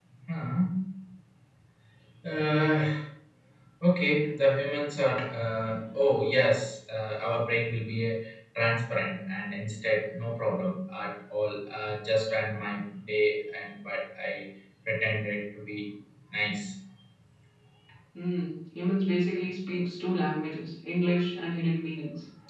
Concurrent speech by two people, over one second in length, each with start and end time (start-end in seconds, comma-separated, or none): none